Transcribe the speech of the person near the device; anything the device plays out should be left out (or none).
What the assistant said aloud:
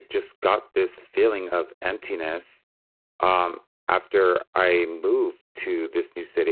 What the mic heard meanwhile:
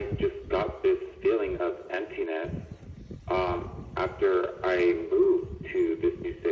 none